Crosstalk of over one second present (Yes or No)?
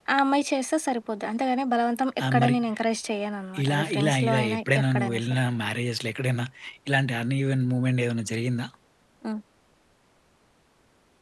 Yes